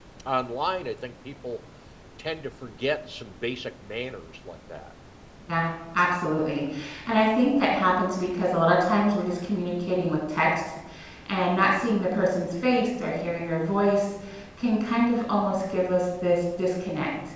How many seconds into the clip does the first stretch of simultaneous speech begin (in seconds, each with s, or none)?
none